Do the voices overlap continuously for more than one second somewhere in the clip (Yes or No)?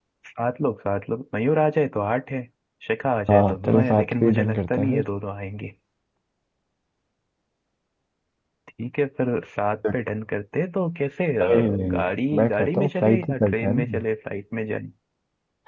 Yes